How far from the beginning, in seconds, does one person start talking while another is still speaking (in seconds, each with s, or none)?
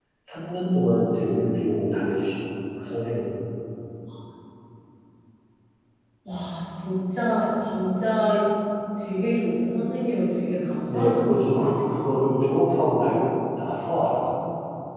10.9 s